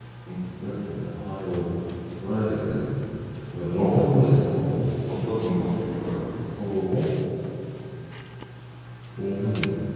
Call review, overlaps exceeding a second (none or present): none